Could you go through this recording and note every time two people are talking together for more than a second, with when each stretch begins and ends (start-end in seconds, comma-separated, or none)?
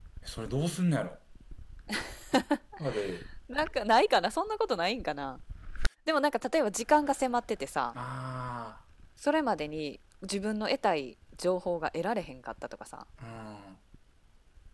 none